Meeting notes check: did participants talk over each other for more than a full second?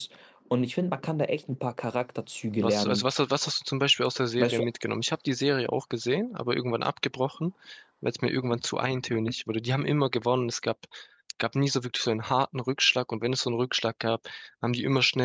No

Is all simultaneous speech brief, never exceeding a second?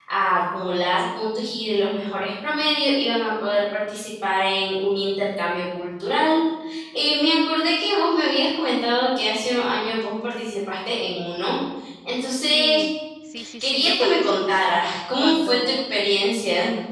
No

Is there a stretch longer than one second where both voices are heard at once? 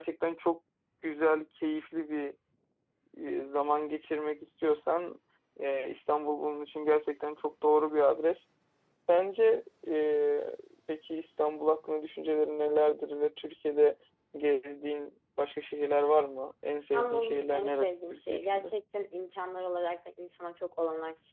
Yes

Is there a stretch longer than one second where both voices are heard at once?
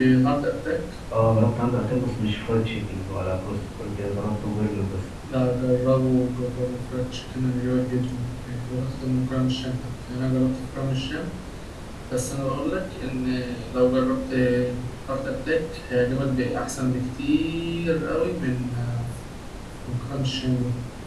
No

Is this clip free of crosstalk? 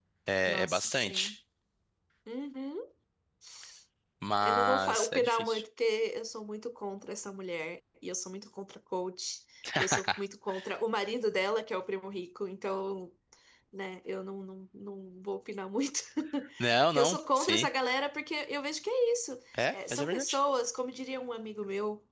No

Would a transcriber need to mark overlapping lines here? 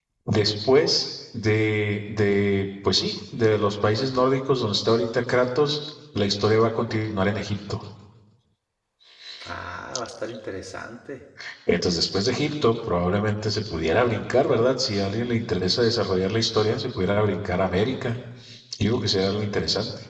No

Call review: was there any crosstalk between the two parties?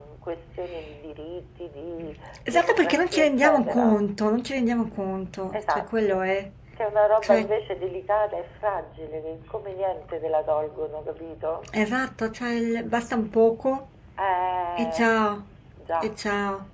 Yes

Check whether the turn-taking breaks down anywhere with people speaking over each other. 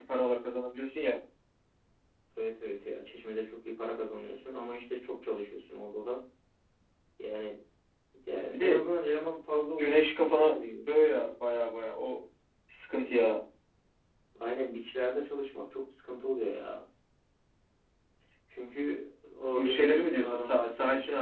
Yes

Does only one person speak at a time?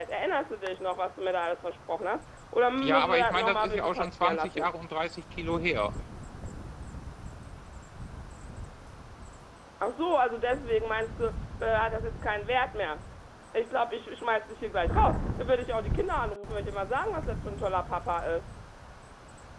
No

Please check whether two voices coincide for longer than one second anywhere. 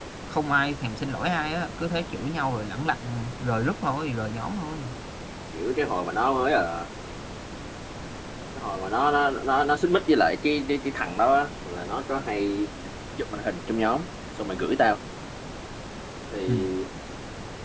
No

